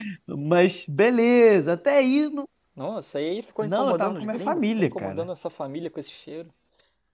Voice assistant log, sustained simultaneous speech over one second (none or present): present